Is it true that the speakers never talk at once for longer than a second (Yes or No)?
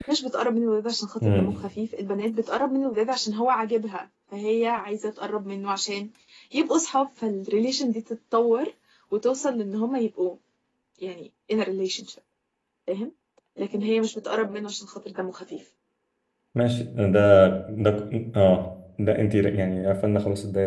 Yes